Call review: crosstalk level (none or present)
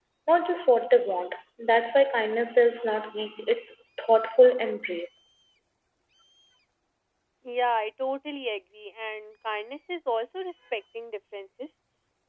none